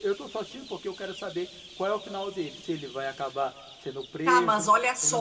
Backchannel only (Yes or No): No